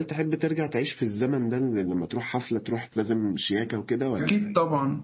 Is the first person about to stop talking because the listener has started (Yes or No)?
Yes